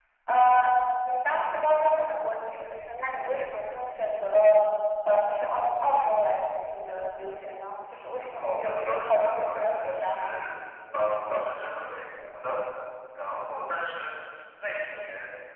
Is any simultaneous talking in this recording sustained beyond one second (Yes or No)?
Yes